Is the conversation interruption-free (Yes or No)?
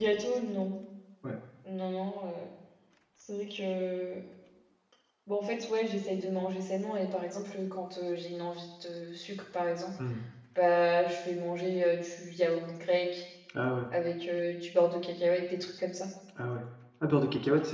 Yes